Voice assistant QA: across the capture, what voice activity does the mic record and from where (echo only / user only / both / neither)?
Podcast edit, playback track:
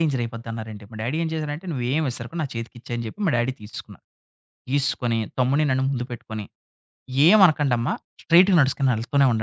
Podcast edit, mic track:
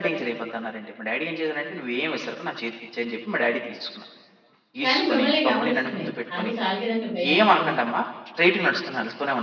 both